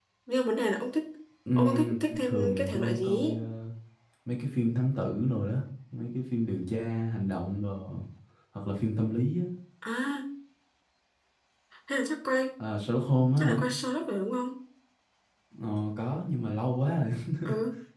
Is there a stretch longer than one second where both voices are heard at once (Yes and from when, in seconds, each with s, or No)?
Yes, from 1.6 s